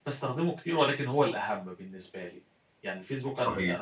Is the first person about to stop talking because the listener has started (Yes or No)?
No